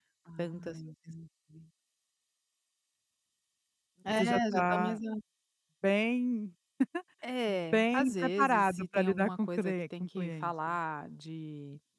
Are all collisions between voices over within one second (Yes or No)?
No